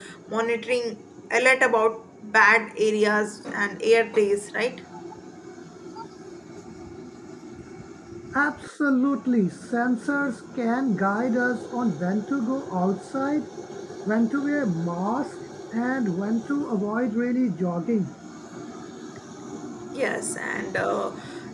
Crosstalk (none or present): none